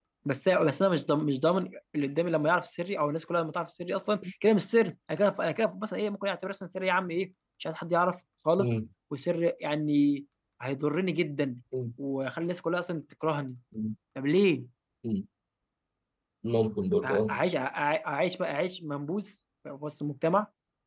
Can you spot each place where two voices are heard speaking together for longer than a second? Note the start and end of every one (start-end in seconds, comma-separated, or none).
none